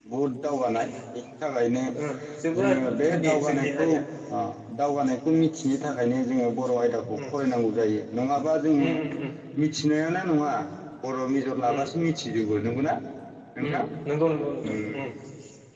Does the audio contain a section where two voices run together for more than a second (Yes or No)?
Yes